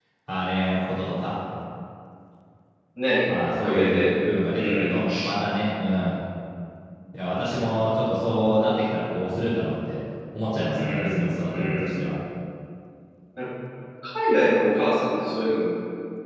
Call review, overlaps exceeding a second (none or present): present